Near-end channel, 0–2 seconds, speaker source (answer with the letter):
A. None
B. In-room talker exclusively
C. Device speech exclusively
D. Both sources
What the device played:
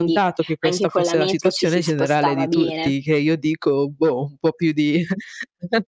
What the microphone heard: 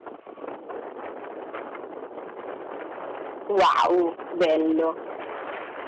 A